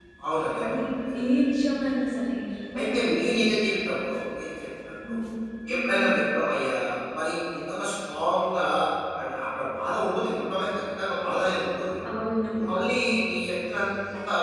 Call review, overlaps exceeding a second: none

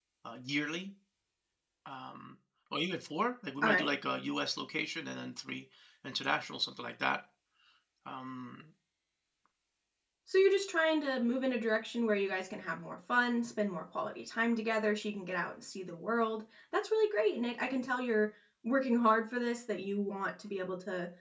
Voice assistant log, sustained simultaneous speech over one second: none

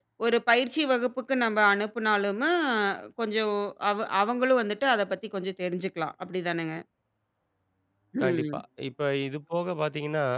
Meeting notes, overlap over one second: none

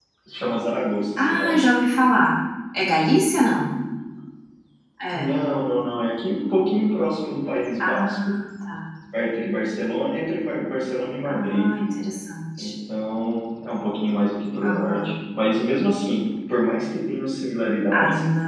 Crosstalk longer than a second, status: none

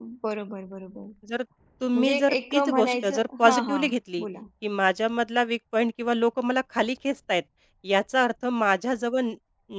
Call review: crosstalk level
present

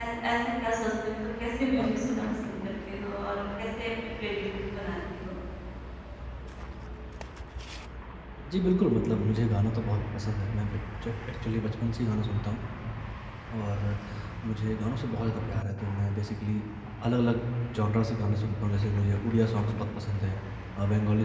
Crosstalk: none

